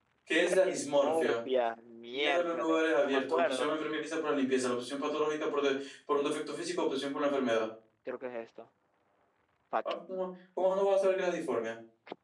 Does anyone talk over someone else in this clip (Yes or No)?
Yes